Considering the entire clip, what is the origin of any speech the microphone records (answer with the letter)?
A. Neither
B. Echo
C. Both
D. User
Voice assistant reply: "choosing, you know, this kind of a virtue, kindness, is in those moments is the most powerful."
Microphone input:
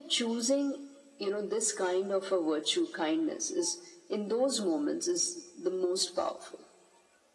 B